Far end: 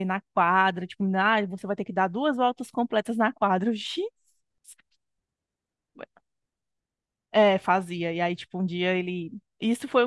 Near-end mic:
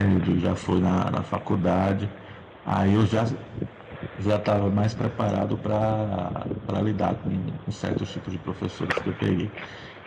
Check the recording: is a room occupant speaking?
Yes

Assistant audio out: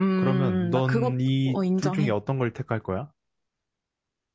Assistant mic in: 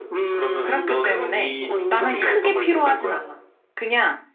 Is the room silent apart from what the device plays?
No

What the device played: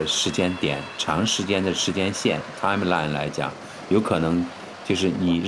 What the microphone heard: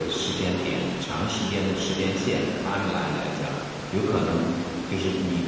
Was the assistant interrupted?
No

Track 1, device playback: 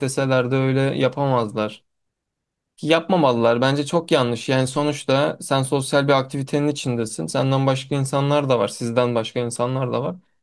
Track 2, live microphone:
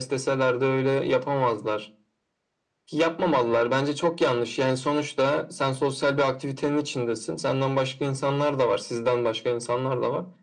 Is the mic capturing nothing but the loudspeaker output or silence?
Yes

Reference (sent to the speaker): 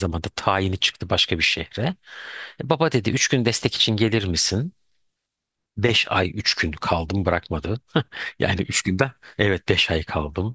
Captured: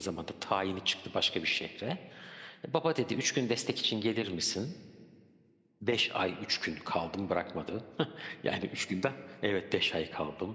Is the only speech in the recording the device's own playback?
Yes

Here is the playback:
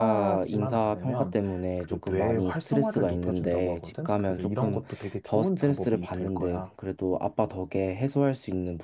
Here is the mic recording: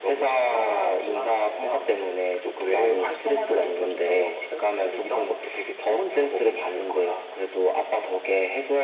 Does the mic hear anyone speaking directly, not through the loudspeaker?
No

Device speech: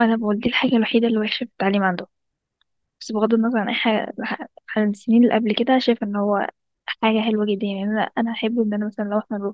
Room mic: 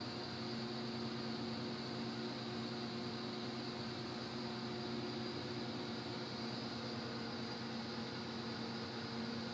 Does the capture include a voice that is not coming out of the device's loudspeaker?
No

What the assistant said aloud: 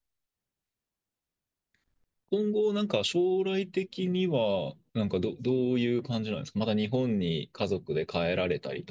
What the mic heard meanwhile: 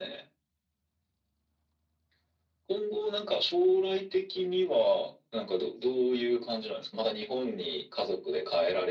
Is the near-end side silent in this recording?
Yes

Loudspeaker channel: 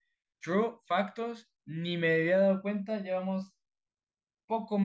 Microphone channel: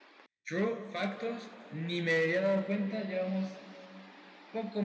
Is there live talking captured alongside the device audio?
No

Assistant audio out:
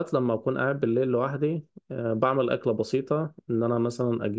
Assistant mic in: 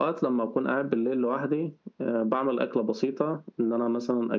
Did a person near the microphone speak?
No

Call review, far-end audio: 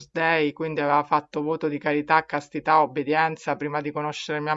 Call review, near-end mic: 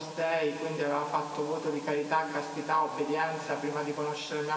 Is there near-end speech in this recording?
No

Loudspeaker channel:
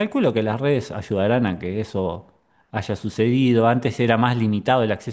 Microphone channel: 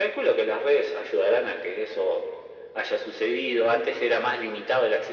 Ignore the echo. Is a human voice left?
No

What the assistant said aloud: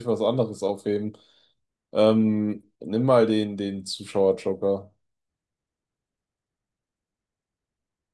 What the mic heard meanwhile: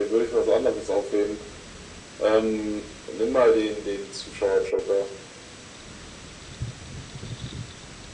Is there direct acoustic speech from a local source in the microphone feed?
No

